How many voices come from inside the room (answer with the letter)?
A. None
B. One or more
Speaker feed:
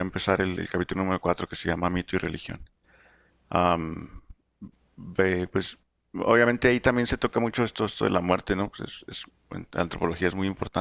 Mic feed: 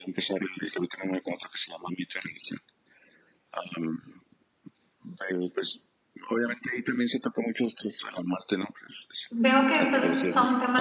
B